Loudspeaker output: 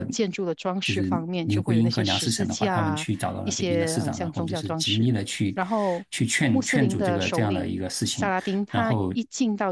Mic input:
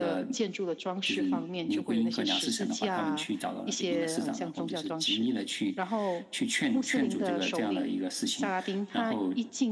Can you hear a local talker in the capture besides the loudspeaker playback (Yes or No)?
No